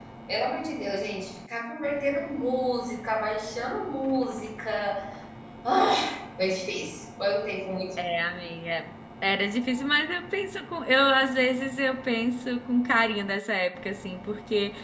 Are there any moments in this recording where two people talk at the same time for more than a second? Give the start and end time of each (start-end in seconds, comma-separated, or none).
none